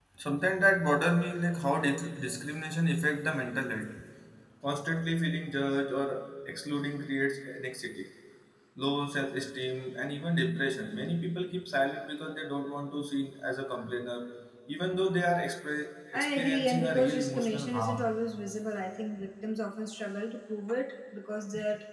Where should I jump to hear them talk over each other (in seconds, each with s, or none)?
16.1 s